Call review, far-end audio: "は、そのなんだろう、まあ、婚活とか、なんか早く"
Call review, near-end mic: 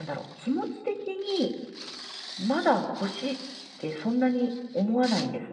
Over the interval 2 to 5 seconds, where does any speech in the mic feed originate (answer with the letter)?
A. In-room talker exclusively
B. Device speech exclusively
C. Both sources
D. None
A